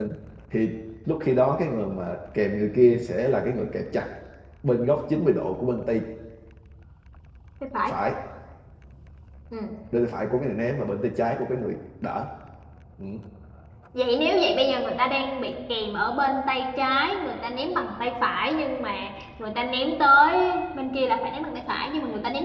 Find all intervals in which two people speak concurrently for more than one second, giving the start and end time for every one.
none

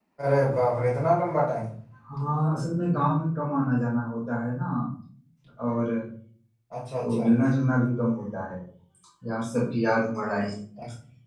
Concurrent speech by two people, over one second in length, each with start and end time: none

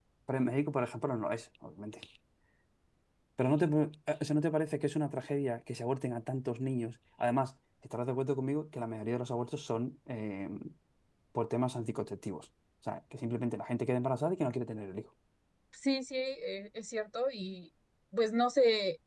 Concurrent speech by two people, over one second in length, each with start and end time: none

